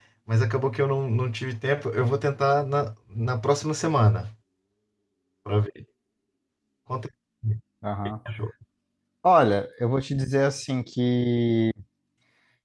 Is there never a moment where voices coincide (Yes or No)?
Yes